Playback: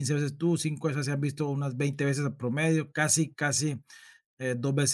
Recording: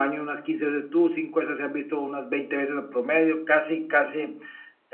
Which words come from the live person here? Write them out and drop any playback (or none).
none